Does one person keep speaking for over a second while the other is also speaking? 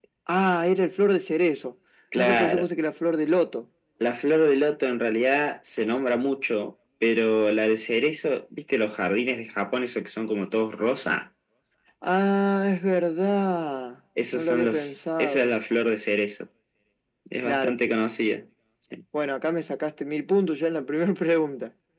Yes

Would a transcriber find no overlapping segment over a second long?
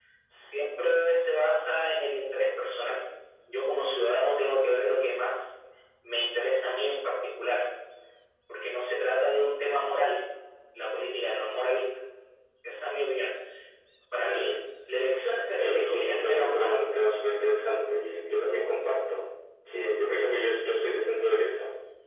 No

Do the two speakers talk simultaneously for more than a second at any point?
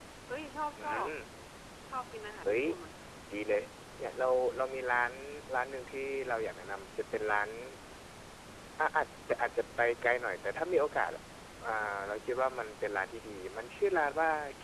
No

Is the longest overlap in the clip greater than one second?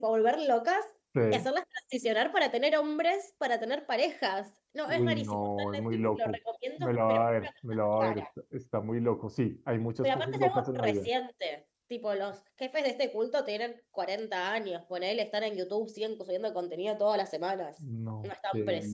Yes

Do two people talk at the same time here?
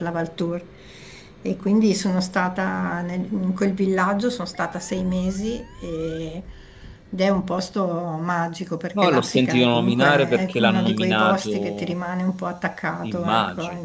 Yes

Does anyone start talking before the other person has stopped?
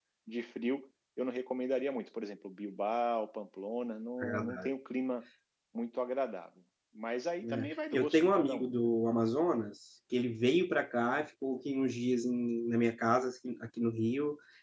Yes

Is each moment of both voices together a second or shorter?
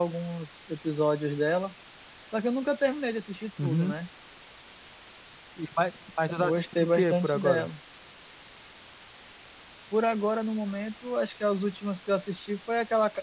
No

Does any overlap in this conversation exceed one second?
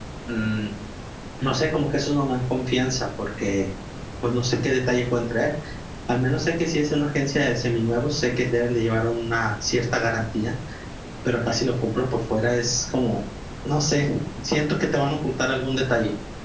No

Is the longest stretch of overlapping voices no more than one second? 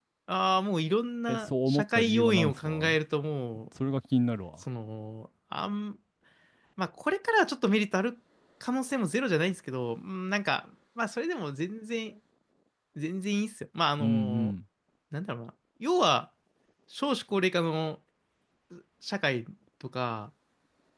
No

